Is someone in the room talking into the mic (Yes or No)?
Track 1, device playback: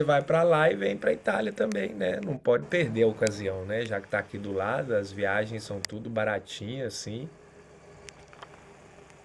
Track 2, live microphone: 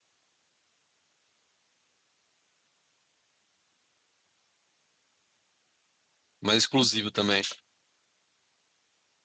Yes